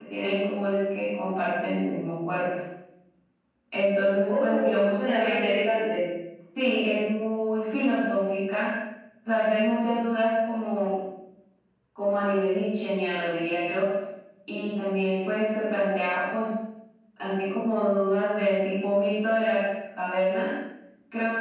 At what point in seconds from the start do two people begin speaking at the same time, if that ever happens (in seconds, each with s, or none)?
4.3 s